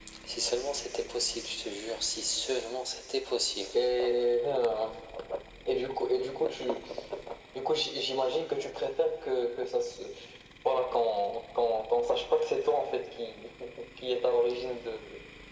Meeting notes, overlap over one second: none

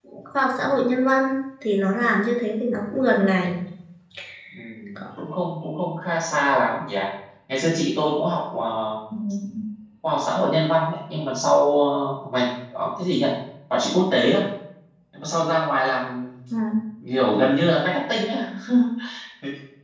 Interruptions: none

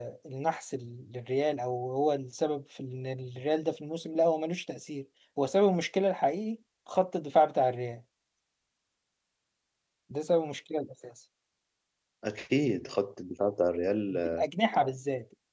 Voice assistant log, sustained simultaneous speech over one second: none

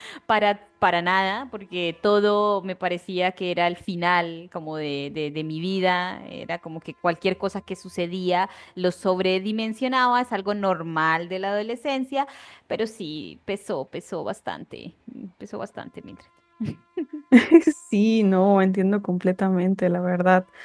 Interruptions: none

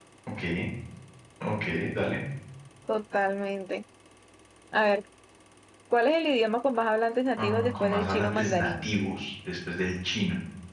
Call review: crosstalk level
present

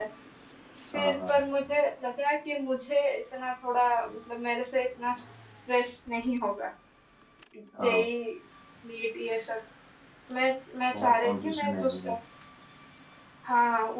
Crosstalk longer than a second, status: present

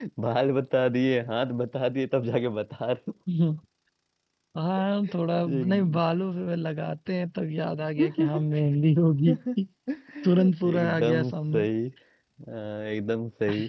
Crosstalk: present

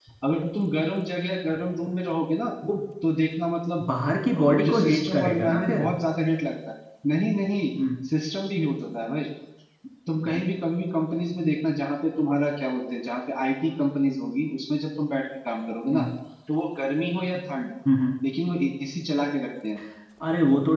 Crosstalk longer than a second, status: present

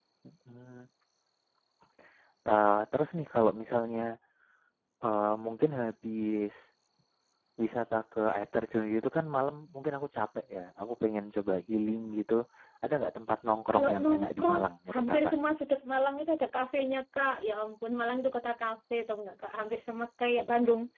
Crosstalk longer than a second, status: present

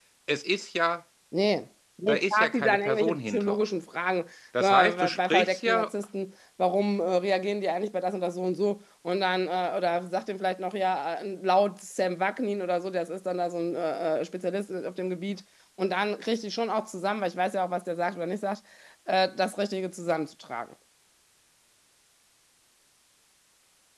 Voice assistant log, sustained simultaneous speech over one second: present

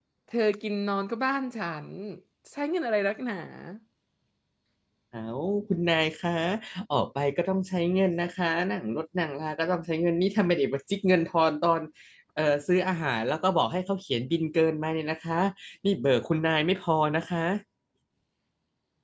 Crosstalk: none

